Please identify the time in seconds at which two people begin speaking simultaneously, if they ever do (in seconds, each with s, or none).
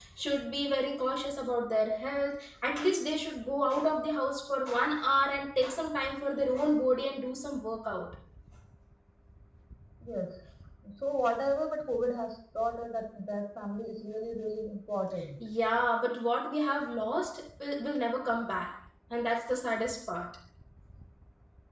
none